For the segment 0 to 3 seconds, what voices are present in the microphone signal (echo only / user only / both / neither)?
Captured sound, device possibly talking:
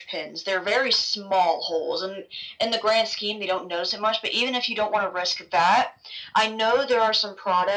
echo only